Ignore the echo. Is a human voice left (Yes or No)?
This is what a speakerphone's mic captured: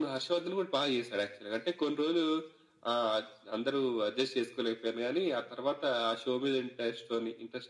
No